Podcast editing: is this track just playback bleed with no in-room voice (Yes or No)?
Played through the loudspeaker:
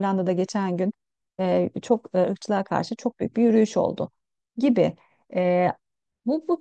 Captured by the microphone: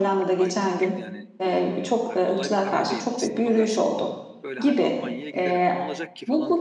No